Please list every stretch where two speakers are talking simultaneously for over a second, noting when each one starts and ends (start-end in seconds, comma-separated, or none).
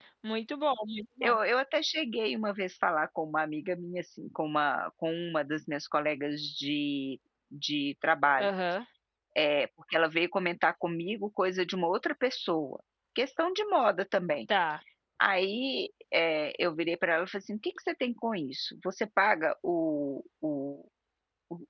none